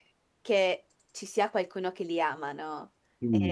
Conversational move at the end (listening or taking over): taking over